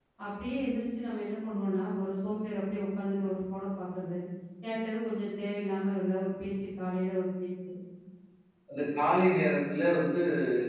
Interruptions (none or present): none